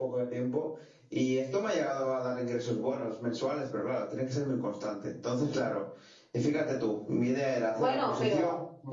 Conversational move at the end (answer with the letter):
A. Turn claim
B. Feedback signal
A